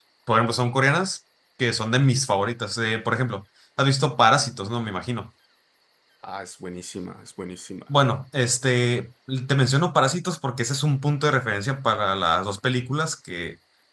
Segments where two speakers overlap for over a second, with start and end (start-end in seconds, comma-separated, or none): none